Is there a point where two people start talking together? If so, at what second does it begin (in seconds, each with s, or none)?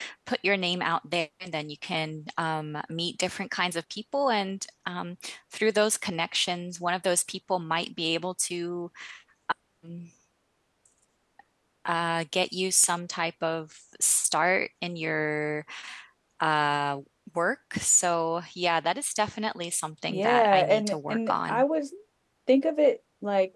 20.1 s